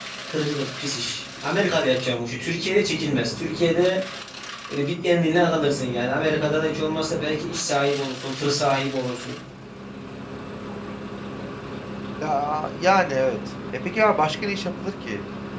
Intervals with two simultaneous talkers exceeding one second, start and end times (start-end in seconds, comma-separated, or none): none